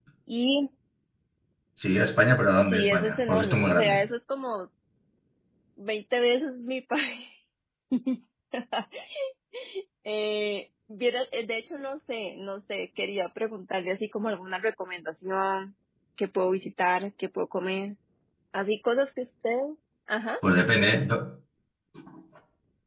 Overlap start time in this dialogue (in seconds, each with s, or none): 2.6 s